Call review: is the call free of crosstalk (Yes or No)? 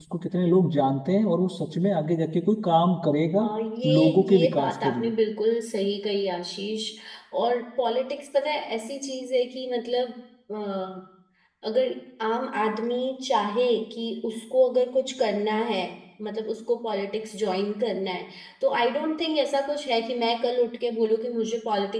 No